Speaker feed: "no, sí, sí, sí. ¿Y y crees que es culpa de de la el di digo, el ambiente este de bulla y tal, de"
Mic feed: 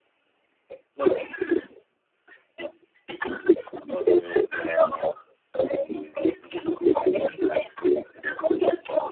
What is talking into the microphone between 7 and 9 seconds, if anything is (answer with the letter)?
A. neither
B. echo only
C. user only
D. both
B